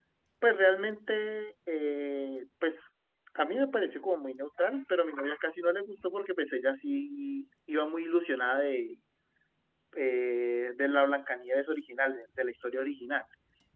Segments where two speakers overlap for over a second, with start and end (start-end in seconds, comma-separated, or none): none